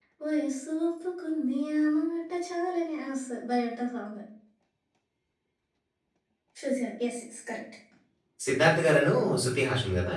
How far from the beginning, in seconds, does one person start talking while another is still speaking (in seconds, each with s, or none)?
none